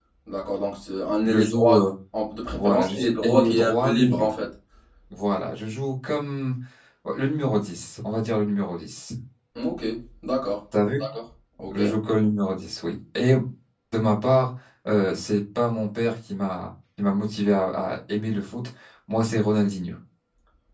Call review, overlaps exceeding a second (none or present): present